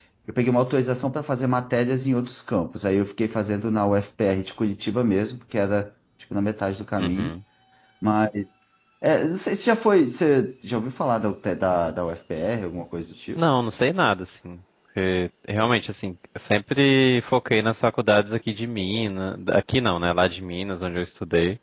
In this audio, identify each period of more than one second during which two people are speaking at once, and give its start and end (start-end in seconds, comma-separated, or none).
none